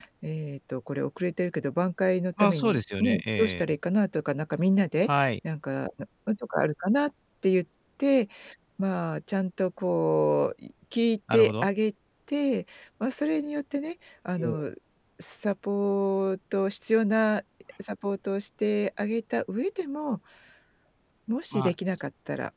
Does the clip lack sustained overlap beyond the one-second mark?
No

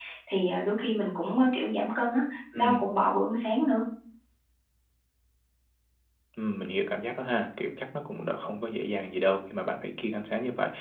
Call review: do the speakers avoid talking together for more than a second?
Yes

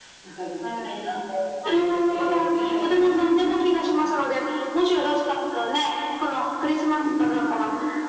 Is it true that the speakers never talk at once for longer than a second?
No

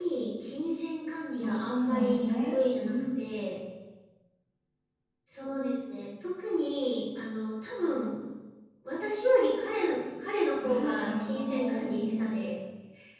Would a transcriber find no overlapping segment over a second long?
No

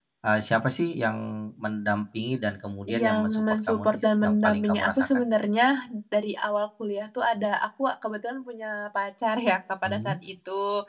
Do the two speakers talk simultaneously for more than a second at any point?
Yes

